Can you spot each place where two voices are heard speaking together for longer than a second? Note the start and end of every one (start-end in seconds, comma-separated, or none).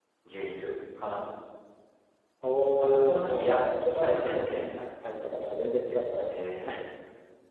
2.8-4.9